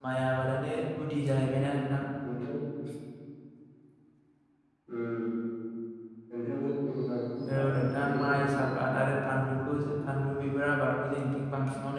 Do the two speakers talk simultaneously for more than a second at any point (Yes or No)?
Yes